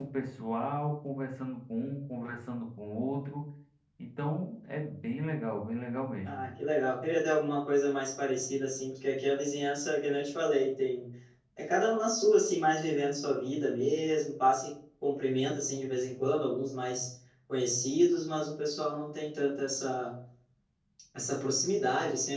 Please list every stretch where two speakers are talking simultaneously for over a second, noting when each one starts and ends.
none

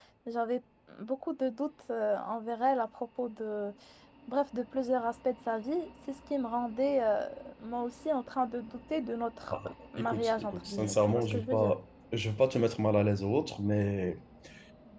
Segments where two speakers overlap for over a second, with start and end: 10.0-11.7

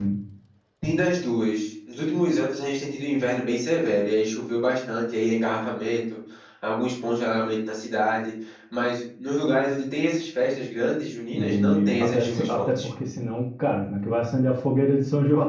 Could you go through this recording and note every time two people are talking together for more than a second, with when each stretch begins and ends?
11.3-12.9

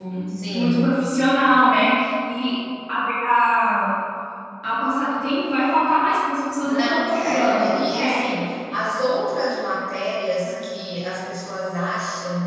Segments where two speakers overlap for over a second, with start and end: 6.6-8.5

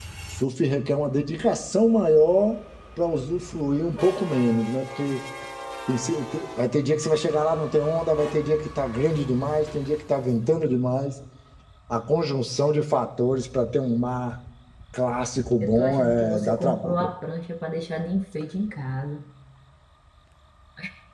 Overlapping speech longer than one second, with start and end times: 15.6-17.1

